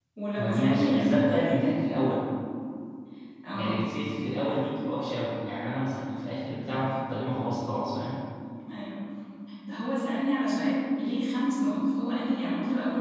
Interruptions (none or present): present